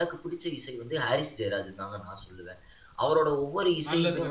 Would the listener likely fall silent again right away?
No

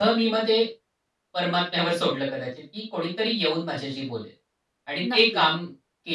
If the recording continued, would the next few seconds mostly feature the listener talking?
No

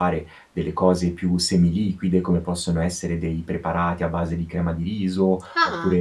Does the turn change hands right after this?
No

